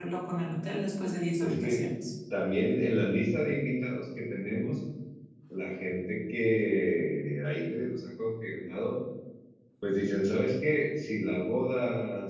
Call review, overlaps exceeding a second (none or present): none